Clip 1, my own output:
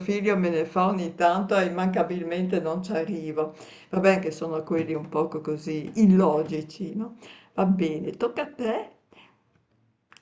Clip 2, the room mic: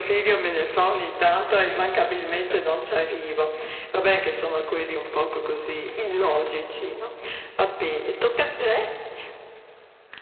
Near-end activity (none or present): present